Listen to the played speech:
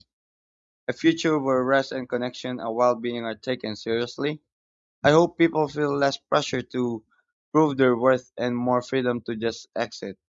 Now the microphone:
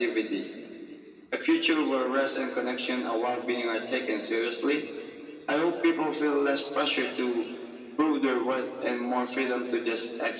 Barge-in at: none

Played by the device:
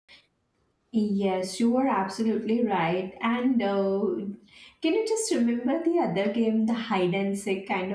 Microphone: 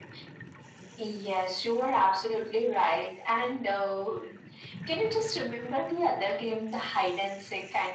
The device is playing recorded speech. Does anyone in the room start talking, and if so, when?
none

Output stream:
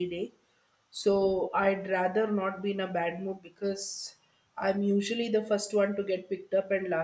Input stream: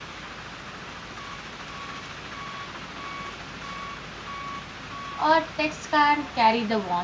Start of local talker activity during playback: 5.2 s

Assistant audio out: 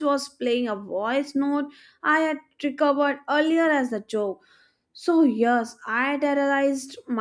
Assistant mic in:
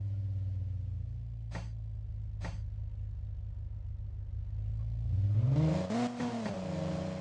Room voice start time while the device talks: none

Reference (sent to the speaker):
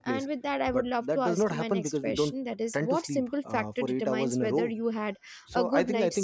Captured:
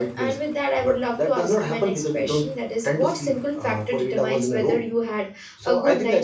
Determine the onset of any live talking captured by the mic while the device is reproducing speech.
none

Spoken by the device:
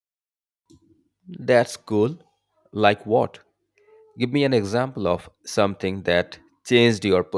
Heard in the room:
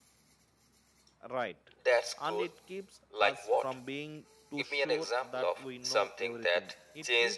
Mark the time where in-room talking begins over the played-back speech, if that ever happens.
1.3 s

